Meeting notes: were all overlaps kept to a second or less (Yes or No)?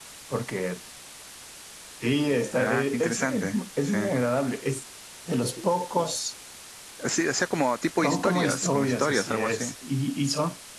No